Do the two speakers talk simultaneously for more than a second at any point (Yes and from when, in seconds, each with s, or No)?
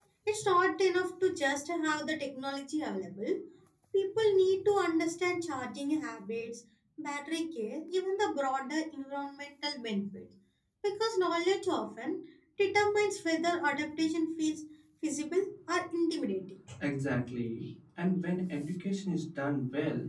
No